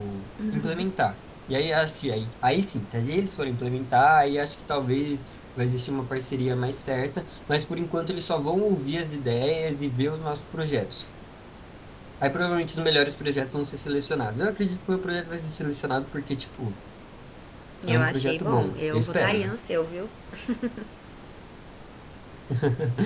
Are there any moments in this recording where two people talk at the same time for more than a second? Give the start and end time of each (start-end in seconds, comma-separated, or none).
17.9-19.5